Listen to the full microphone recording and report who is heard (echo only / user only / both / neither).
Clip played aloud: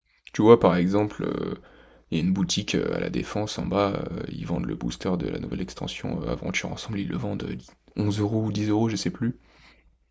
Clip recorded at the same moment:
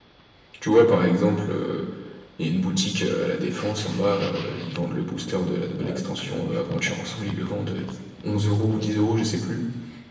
both